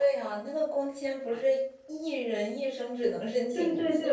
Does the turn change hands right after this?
Yes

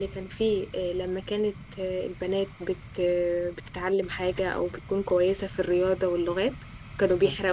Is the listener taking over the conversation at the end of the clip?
No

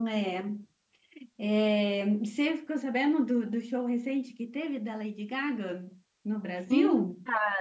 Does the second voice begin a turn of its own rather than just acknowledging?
Yes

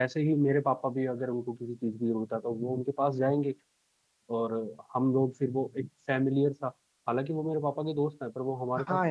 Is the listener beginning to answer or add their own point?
Yes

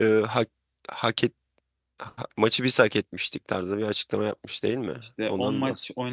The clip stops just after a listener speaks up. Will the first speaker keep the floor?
No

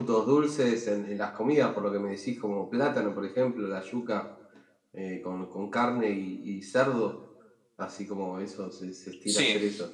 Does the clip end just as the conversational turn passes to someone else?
Yes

